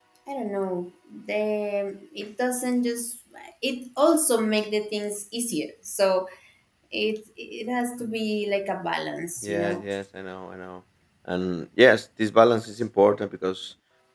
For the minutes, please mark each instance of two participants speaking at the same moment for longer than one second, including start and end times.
none

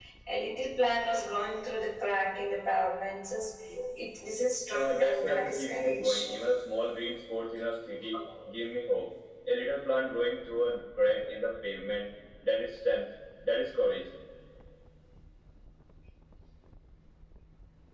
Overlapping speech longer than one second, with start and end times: 4.7-6.3

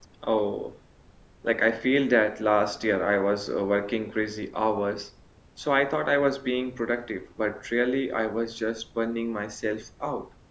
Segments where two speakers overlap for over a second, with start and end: none

